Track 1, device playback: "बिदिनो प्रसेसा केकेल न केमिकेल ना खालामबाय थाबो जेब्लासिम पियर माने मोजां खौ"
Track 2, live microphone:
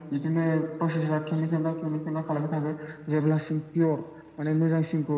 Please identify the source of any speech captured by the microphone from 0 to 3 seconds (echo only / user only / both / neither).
echo only